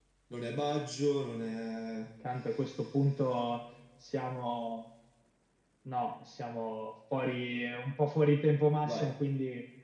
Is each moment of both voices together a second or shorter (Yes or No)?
Yes